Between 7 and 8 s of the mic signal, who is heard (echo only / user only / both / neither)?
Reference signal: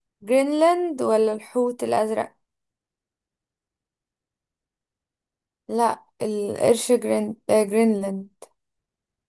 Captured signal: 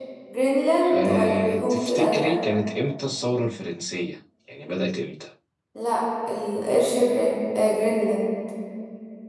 echo only